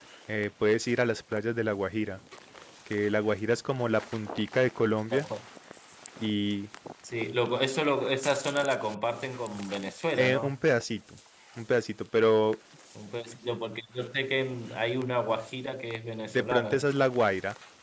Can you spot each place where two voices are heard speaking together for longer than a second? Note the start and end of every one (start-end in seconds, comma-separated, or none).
none